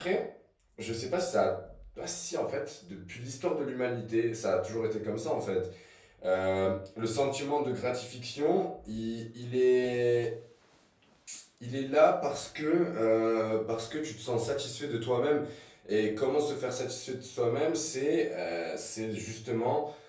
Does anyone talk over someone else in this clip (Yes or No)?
No